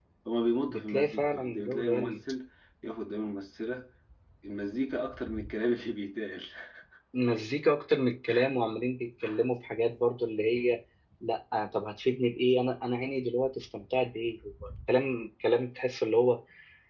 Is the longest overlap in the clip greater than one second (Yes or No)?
Yes